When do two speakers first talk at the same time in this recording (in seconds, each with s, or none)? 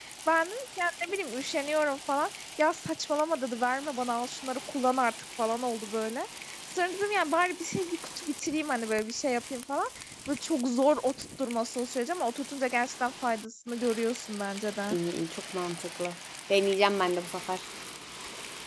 none